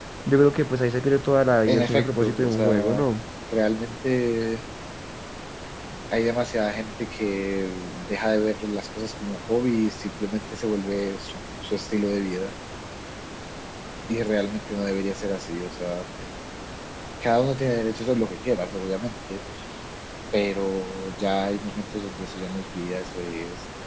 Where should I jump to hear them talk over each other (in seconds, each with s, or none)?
1.7 s